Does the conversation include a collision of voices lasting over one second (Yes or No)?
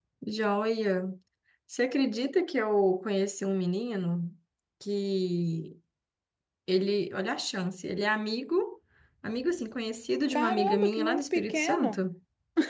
Yes